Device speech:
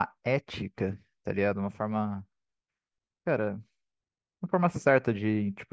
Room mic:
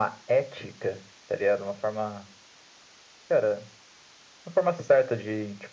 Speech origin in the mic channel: echo only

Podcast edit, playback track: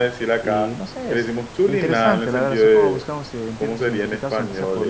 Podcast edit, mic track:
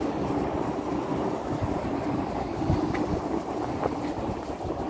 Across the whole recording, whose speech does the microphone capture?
neither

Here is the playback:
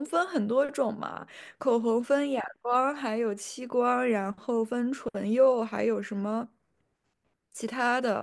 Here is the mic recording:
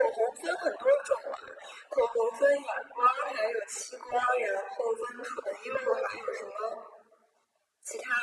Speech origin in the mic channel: echo only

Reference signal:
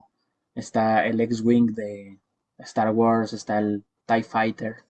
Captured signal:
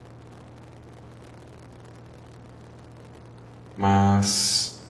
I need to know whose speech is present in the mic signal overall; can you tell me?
user only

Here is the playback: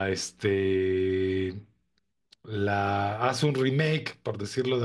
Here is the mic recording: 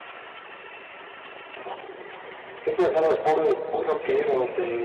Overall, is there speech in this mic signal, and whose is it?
user only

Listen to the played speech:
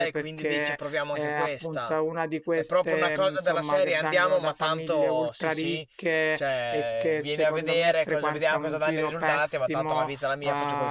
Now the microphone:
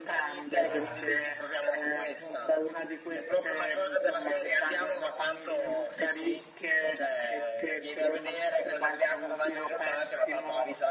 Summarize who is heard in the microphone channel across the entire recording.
both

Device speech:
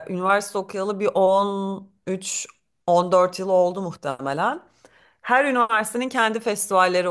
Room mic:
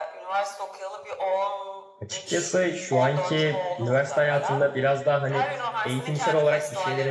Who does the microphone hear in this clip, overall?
both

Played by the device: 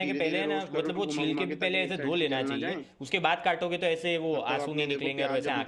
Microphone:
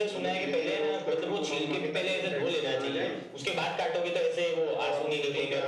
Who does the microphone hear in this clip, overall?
echo only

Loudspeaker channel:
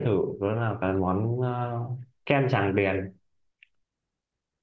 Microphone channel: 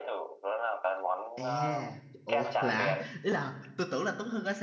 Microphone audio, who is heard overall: both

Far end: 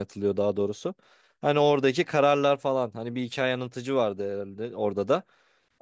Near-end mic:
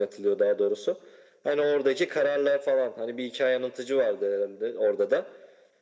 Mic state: echo only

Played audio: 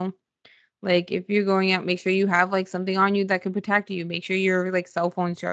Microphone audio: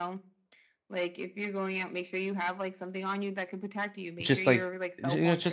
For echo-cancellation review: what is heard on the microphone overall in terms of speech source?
both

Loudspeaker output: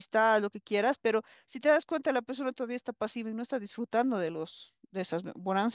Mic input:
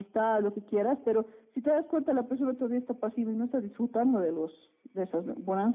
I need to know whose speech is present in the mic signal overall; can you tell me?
echo only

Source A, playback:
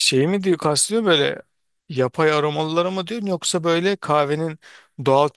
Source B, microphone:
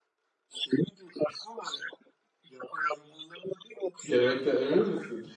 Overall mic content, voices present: both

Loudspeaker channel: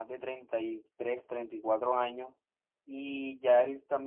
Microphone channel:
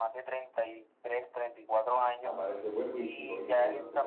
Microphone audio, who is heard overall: both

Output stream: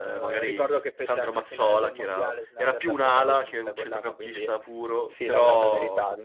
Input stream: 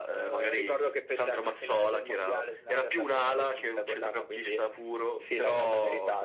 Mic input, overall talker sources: echo only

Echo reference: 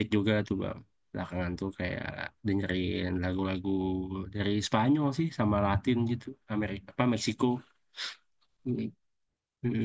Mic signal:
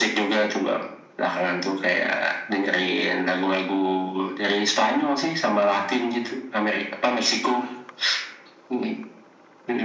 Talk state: echo only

